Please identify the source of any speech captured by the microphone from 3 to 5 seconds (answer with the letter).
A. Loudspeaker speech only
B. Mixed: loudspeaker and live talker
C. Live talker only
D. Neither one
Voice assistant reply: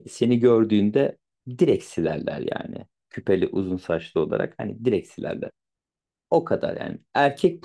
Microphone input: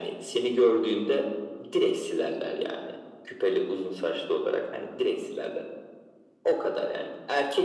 A